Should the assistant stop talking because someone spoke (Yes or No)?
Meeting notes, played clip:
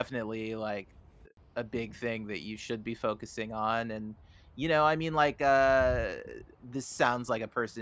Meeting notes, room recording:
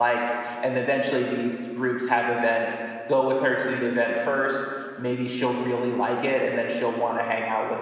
Yes